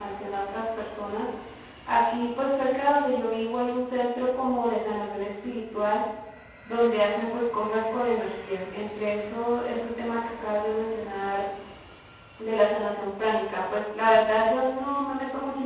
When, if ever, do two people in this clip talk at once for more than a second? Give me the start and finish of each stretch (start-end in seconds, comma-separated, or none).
none